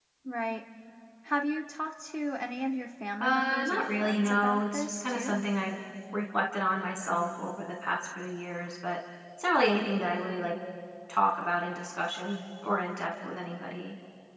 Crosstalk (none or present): present